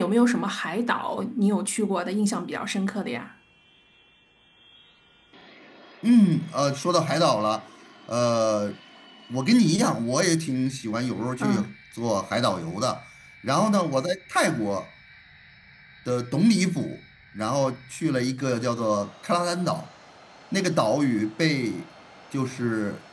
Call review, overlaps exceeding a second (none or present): none